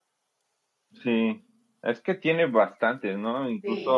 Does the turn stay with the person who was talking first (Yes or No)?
Yes